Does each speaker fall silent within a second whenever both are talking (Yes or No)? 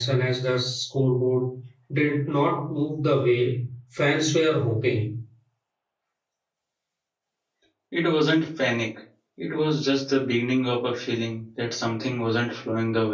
Yes